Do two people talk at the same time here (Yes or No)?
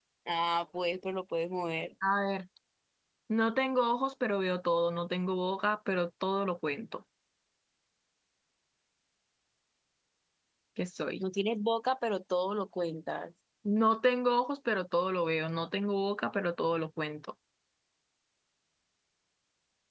No